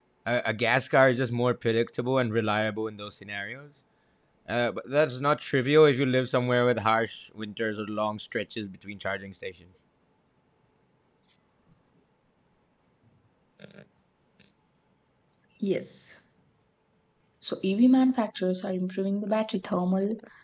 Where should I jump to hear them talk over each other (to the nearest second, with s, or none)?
none